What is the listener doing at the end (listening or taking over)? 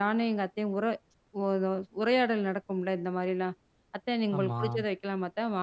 listening